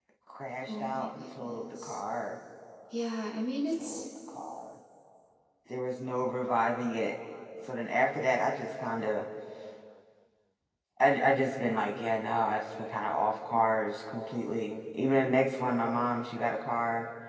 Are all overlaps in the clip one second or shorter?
No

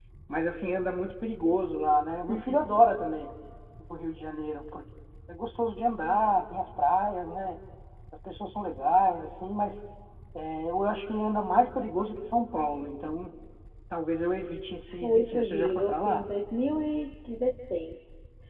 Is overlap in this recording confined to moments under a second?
No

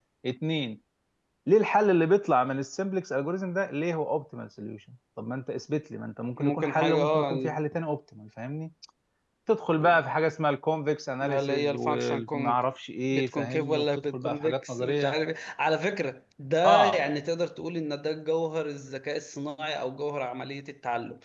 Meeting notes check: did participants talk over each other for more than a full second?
Yes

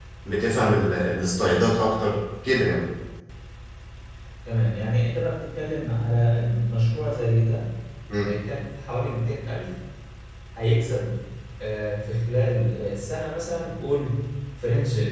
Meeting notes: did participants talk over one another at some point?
No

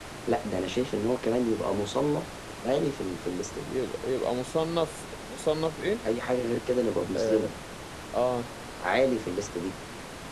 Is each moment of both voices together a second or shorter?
Yes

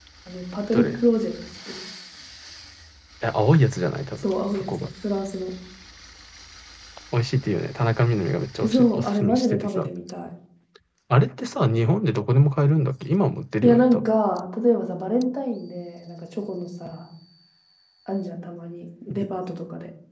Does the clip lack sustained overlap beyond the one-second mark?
No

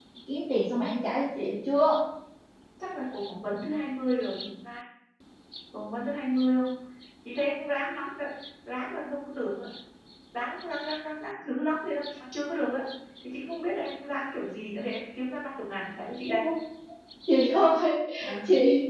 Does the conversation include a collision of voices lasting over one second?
No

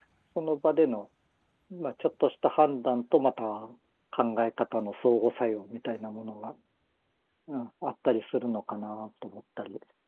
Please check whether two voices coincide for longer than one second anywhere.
No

